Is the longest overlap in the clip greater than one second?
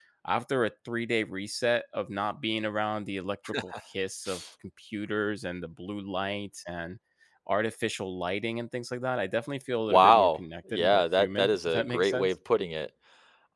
Yes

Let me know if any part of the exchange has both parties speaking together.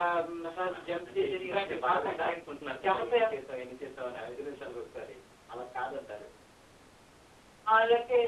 Yes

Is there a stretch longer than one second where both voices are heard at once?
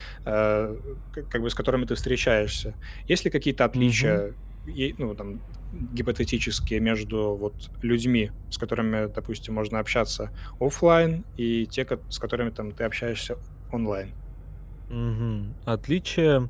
No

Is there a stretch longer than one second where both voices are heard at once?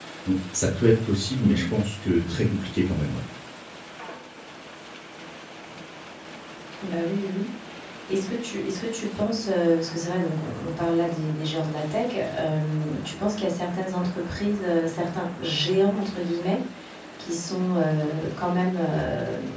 No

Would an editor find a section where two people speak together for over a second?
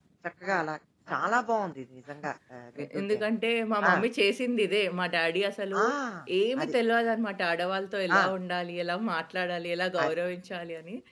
No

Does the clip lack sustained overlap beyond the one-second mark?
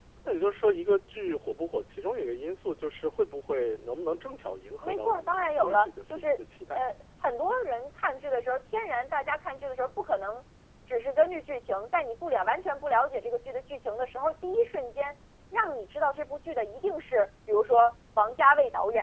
No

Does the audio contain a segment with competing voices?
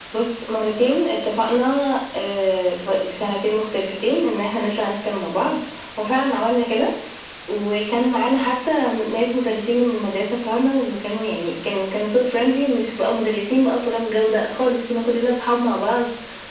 No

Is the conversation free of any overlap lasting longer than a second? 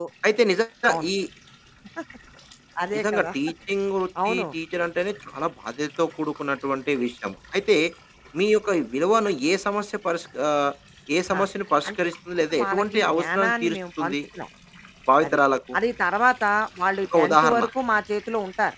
No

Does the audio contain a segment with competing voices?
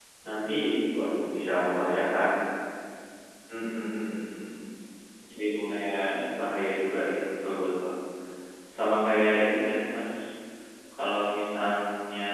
No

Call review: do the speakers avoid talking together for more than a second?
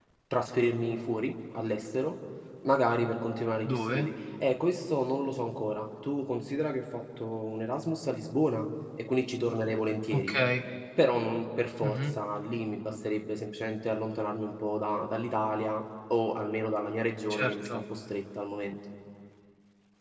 Yes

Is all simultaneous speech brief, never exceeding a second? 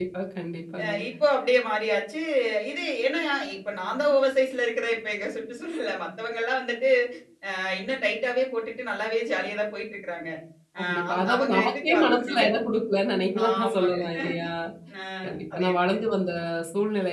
No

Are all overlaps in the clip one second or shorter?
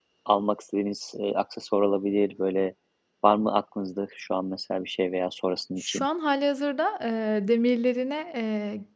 Yes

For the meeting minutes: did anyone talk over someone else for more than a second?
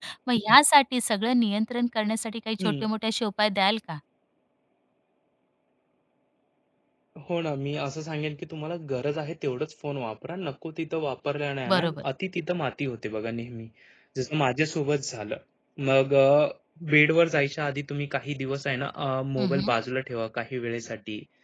No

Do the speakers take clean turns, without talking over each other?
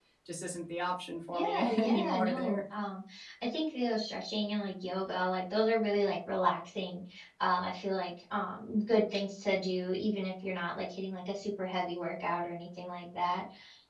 No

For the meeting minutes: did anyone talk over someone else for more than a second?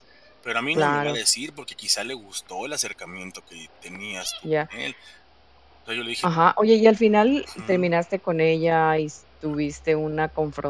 No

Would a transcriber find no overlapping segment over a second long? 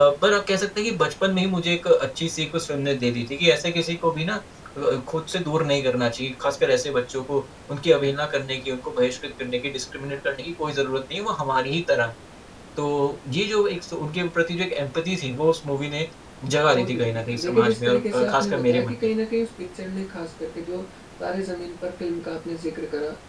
No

